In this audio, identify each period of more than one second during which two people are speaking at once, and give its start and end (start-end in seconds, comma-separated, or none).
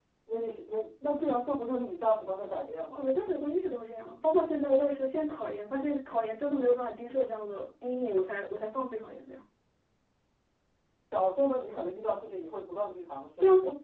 none